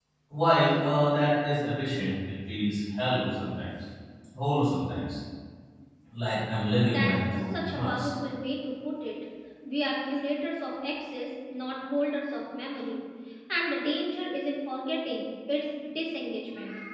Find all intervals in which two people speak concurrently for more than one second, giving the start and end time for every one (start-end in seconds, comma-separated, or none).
6.8-8.1